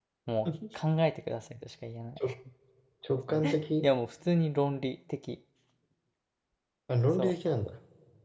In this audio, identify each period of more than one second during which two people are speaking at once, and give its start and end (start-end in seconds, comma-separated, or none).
none